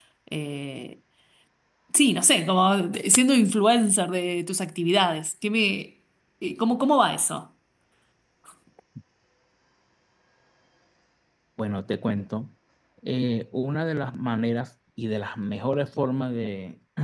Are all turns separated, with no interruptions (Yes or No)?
Yes